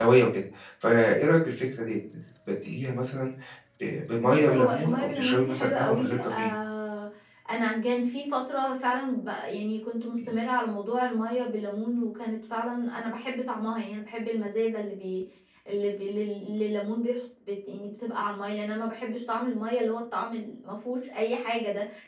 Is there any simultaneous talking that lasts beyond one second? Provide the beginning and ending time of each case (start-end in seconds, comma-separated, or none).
4.2-6.5